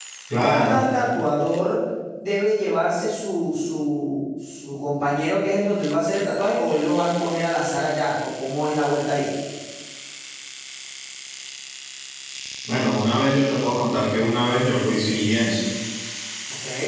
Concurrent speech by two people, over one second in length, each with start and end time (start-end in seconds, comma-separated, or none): none